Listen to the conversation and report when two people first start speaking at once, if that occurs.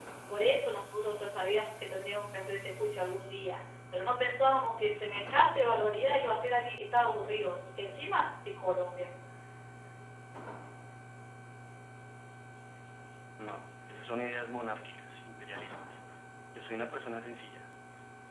none

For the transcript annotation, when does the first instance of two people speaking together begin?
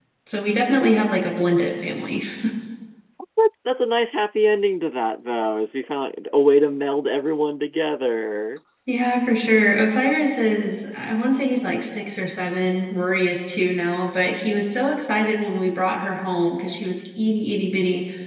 none

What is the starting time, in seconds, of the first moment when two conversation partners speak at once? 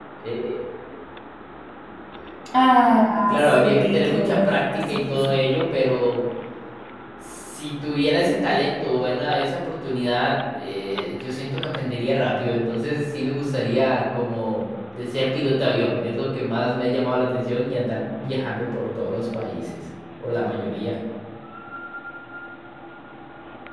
3.4 s

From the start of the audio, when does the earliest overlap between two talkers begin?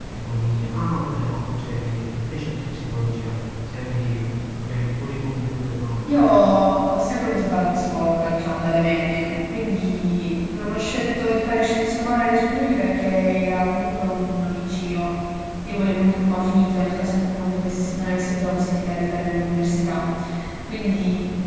none

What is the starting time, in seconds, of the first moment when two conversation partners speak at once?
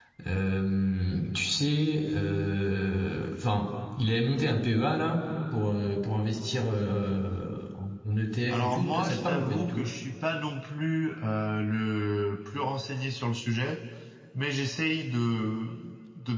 8.5 s

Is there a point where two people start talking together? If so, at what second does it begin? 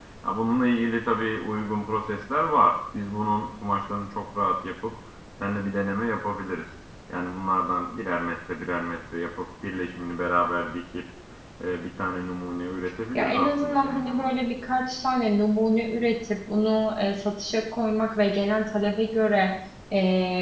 13.1 s

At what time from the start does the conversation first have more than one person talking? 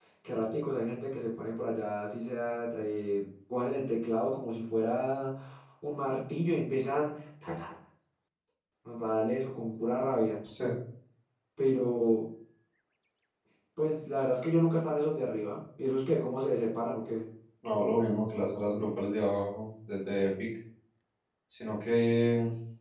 none

